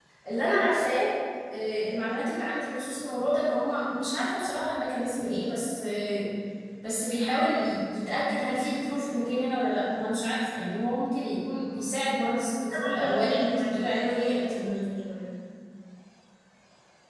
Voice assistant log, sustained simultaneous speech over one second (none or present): present